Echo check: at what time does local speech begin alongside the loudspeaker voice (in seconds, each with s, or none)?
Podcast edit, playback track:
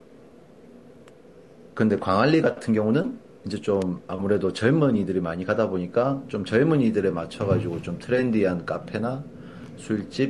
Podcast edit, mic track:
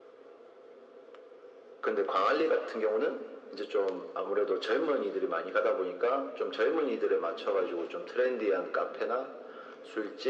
none